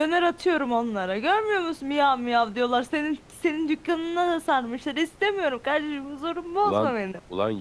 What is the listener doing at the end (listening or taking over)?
taking over